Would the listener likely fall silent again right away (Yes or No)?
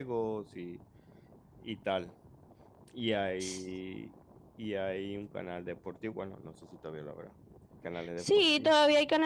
No